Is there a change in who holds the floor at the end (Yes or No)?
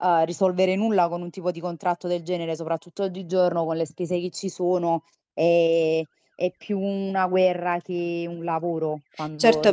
Yes